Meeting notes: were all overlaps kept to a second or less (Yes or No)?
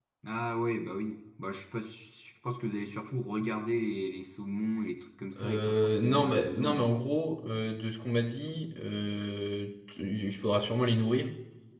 No